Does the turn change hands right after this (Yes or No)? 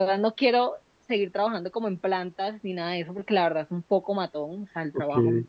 No